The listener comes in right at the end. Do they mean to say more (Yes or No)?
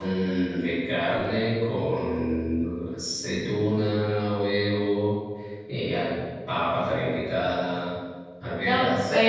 Yes